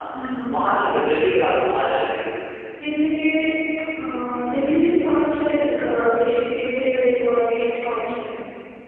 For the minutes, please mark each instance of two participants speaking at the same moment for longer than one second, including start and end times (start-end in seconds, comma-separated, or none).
none